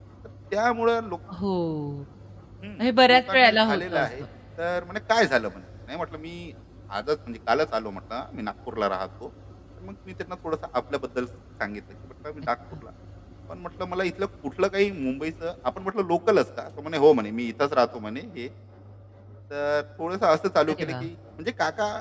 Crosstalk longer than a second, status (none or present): present